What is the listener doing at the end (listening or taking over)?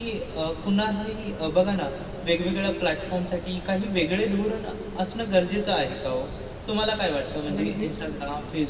listening